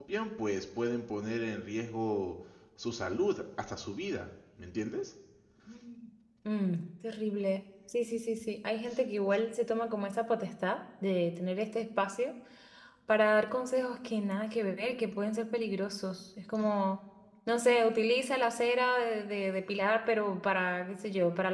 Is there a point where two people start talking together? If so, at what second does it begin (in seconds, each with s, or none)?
none